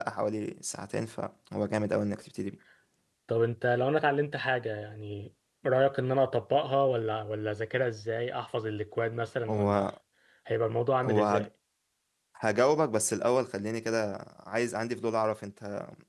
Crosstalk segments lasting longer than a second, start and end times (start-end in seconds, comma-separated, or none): none